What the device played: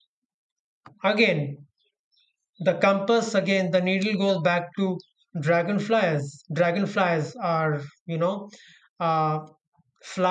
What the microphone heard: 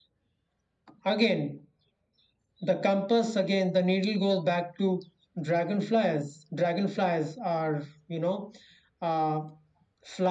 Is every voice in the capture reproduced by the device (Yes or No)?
Yes